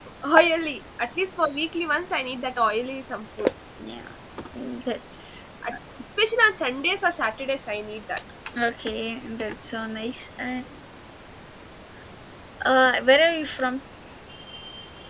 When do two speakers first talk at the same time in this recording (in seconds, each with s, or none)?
none